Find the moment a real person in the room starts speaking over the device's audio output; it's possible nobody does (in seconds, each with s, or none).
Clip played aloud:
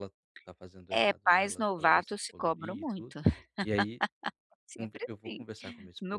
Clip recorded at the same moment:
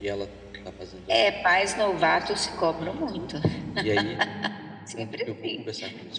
none